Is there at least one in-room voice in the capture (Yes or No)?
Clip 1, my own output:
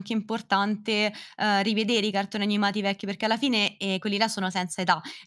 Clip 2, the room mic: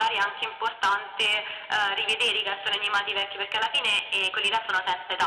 No